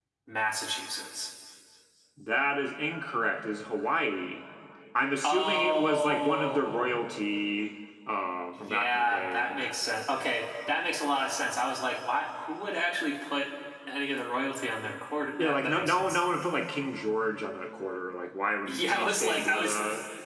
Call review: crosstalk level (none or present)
present